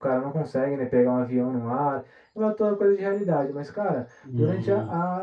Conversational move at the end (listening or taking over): listening